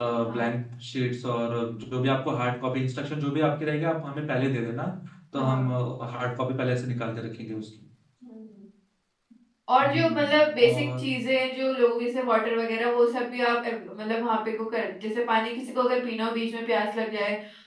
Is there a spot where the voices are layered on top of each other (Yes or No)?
Yes